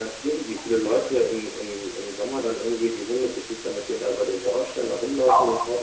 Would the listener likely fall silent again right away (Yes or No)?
Yes